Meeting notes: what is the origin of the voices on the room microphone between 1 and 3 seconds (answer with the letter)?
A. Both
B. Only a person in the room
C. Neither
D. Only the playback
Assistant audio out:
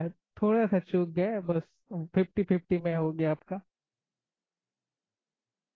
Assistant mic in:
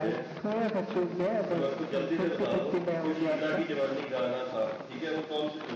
A